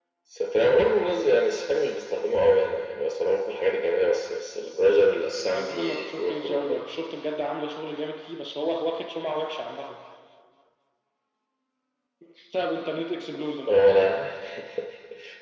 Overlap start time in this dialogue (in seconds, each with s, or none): 5.5 s